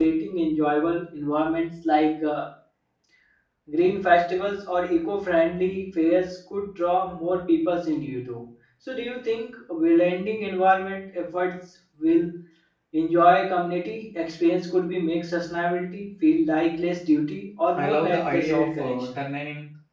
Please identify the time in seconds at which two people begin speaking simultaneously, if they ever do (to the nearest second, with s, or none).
18 s